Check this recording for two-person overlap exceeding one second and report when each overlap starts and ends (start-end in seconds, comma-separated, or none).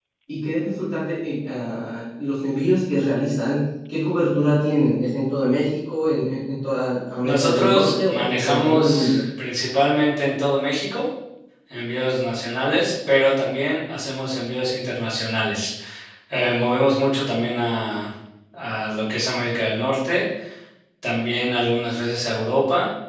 7.2-9.2